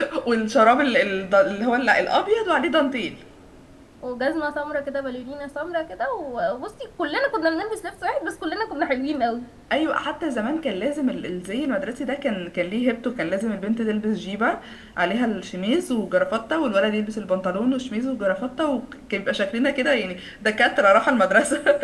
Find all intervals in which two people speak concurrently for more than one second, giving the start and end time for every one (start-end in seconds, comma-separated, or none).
none